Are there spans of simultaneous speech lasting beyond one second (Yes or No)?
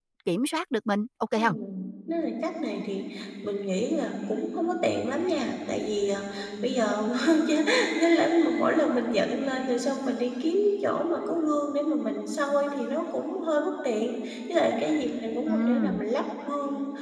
No